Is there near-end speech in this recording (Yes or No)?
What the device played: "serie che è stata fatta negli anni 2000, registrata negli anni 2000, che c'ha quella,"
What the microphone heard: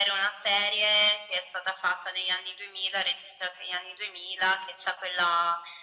No